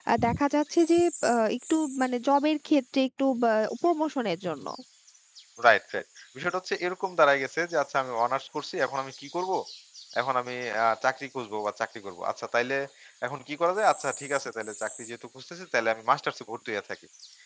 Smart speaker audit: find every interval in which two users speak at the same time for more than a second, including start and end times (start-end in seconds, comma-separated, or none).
none